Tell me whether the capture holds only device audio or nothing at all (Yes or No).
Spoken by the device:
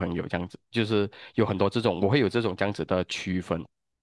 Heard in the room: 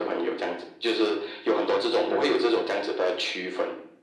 Yes